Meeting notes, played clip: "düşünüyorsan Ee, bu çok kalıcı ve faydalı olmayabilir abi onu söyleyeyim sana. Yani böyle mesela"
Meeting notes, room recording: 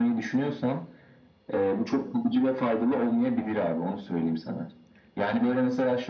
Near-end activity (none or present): none